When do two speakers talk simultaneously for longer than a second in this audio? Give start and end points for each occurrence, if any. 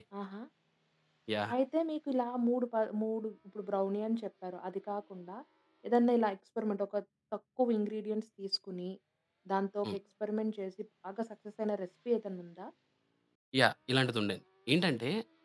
none

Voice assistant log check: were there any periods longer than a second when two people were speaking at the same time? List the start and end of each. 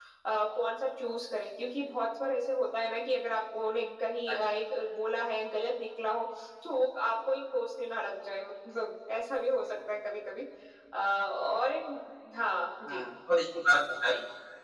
none

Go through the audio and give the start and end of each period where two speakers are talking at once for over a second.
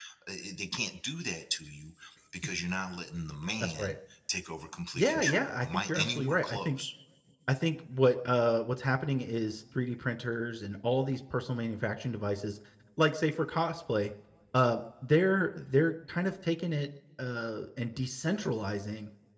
4.9-6.8

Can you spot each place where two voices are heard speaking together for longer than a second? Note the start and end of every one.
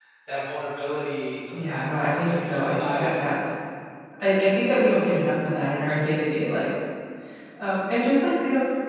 1.5-3.1

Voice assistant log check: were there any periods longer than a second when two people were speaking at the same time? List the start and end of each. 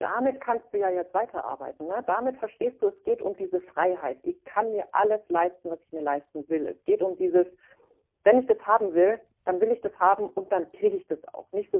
none

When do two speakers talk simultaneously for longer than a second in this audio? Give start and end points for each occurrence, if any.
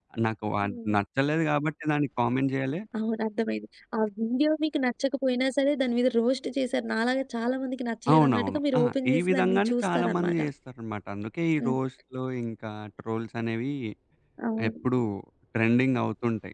8.1-10.4

